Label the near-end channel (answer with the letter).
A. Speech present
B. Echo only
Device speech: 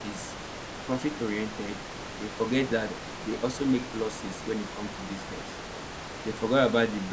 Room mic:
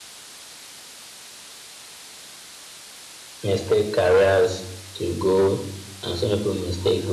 A